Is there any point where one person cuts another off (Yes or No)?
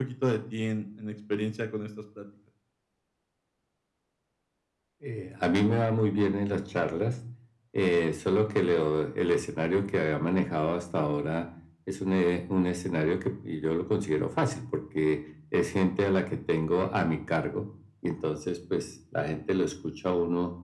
No